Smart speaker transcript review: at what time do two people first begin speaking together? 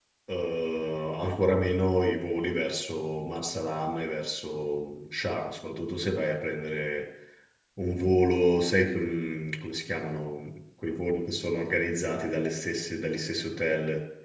none

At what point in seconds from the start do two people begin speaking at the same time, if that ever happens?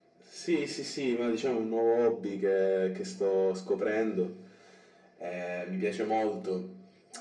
none

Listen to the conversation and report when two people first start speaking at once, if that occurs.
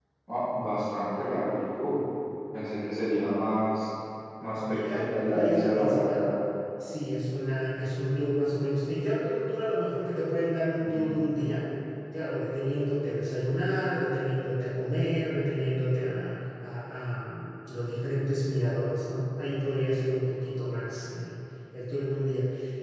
4.7 s

